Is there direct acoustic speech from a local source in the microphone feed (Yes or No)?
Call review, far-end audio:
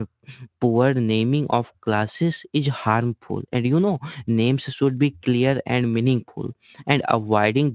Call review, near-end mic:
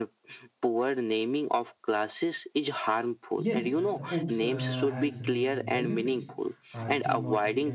Yes